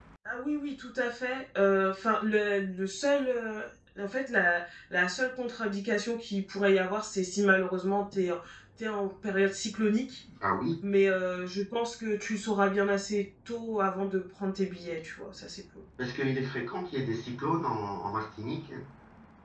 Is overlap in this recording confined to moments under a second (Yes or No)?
Yes